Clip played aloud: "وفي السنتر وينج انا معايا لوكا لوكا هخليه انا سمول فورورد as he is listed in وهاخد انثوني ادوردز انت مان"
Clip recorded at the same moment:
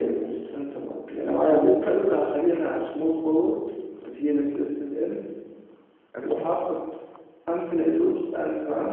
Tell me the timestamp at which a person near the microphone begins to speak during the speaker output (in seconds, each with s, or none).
6.2 s